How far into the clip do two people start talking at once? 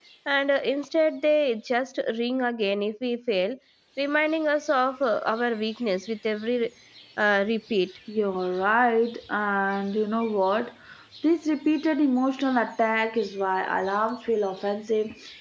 none

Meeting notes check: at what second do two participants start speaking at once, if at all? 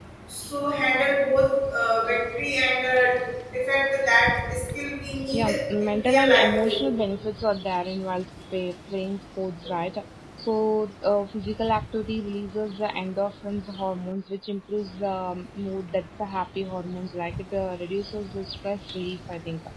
5.3 s

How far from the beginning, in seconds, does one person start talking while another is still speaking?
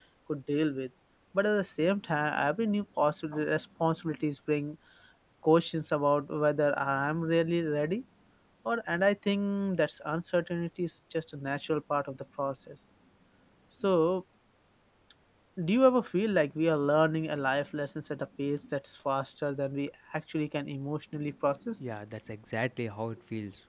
none

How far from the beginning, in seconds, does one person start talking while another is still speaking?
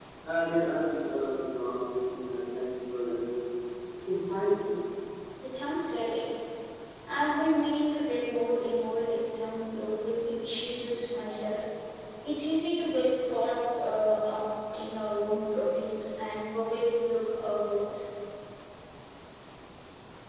none

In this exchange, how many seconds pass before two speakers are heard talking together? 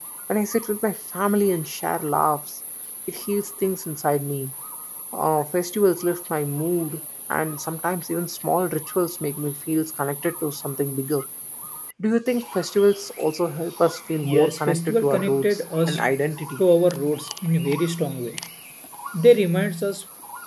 14.2 s

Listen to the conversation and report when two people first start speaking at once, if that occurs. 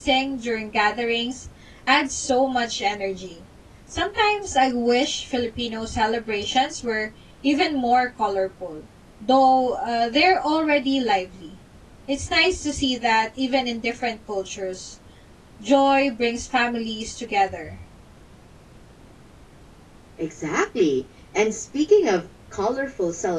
none

